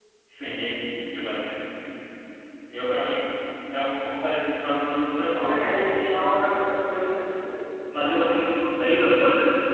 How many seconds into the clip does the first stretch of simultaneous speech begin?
5 s

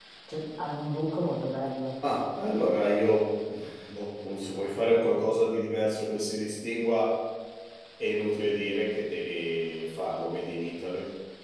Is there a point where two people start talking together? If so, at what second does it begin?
none

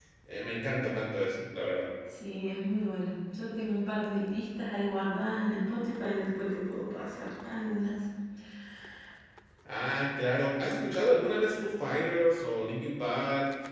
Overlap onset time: none

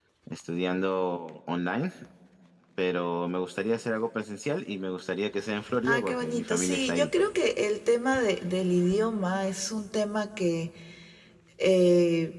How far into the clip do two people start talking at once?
6 s

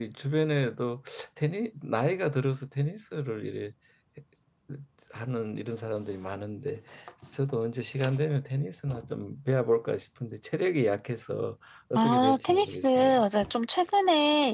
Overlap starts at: 12 s

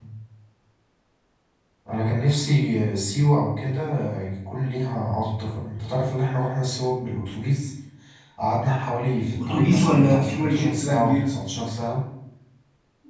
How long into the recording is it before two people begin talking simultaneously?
9 s

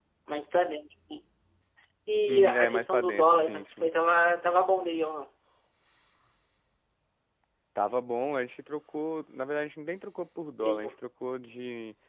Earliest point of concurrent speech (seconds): 2 s

